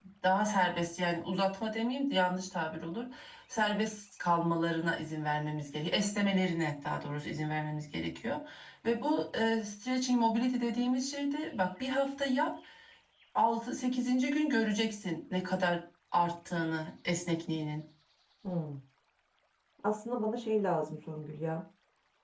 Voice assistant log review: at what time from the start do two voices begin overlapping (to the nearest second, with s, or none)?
none